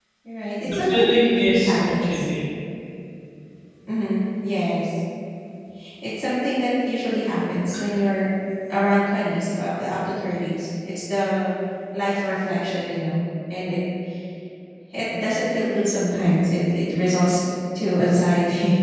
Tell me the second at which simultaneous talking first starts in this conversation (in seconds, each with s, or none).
0.6 s